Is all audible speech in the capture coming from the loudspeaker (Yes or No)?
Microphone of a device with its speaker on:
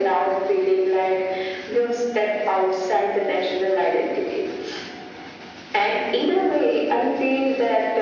Yes